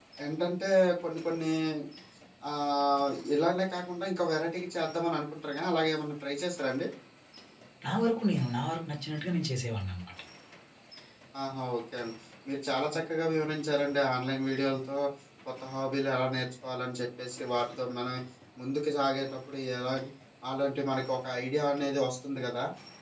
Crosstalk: none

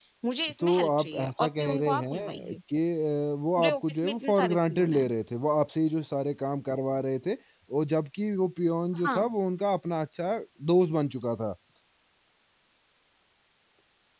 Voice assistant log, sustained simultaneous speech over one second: present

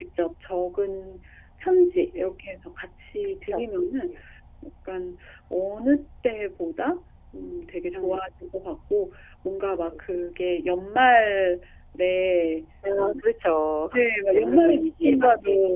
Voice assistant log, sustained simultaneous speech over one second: present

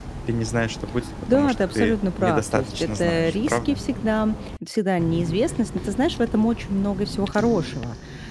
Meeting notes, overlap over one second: present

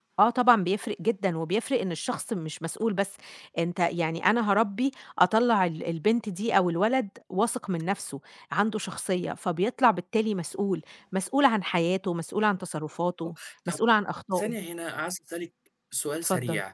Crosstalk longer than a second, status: none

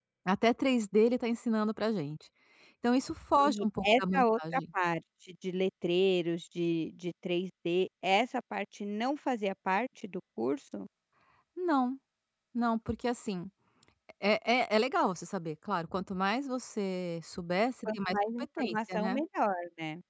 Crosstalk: present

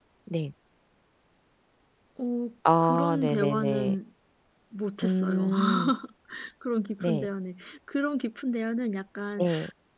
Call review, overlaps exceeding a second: present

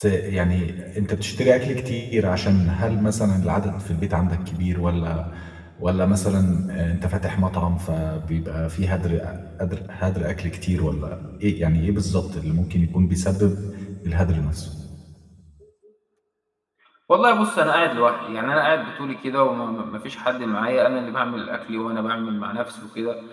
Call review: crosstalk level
none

